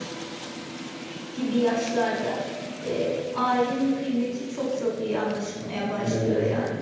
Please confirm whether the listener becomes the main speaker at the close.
Yes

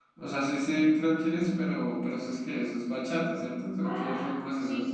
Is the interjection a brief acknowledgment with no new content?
No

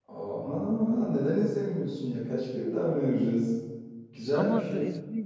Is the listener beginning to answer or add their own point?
Yes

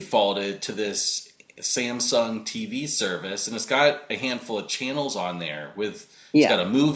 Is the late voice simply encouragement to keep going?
Yes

